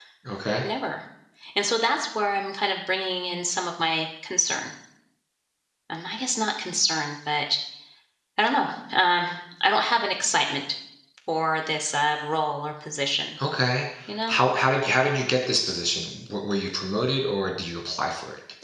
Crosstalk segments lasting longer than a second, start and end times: none

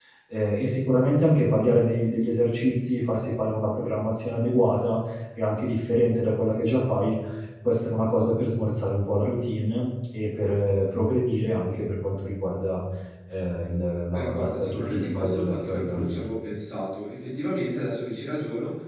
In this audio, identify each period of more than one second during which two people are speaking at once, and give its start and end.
14.1-16.2

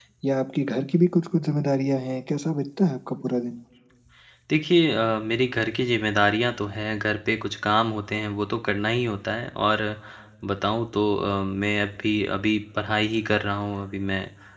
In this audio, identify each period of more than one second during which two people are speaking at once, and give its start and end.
none

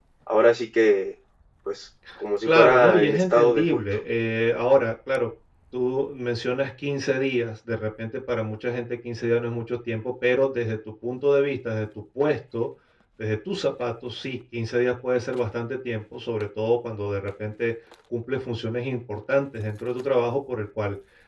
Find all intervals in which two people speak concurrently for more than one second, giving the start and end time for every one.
2.5-3.8

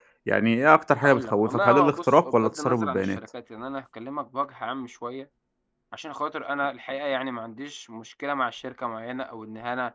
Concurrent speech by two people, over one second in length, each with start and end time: 1.0-3.2

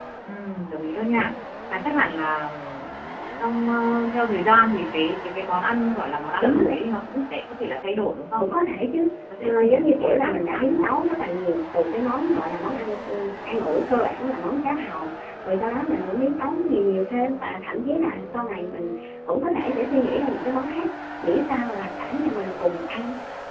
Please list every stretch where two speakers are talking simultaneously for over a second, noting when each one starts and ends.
9.4-10.9

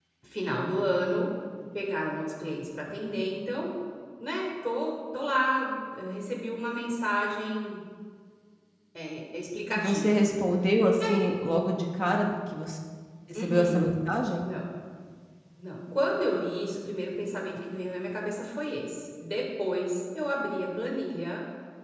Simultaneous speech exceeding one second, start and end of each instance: none

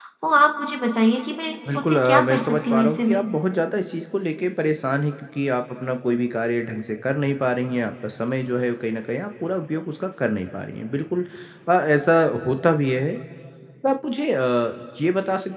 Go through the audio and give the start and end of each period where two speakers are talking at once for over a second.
1.7-3.2

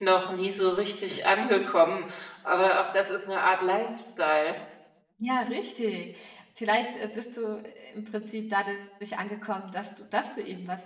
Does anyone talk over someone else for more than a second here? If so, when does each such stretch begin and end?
none

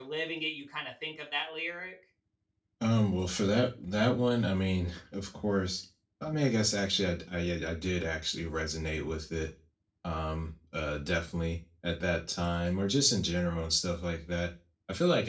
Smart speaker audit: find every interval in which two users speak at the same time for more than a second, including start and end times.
none

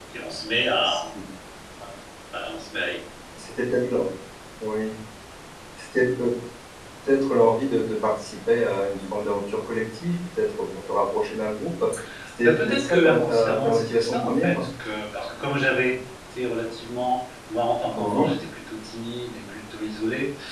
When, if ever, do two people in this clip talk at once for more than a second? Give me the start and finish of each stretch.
12.4-14.7

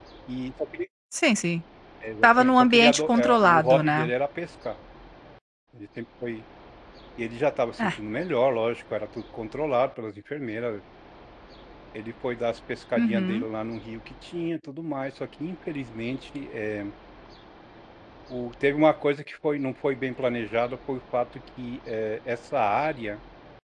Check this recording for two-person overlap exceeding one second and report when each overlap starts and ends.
2.2-4.1

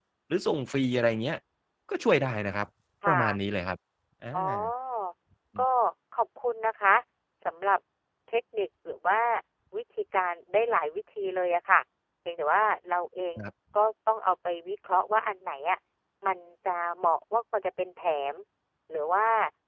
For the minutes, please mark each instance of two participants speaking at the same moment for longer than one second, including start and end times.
none

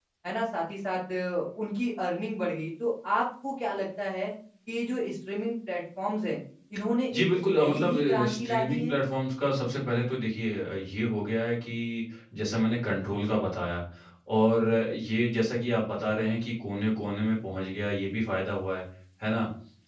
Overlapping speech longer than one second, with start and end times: 7.1-9.0

